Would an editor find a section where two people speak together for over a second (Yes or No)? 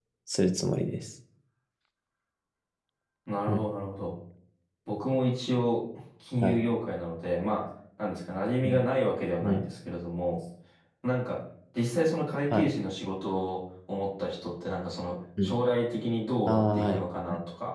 No